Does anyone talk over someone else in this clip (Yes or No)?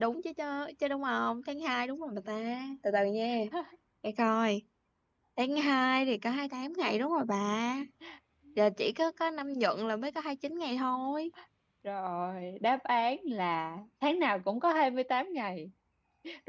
No